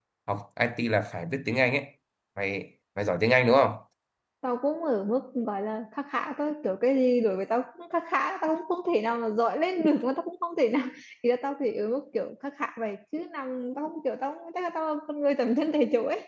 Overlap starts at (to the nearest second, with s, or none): none